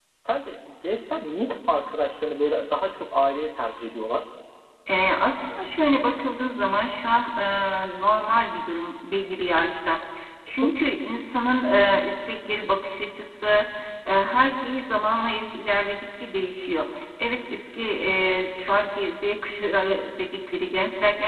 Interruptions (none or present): none